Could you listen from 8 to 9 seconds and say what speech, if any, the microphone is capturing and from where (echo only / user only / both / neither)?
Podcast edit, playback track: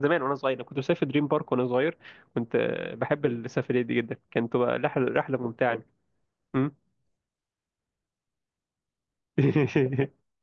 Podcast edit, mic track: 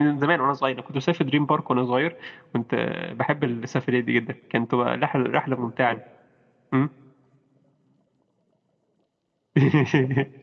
neither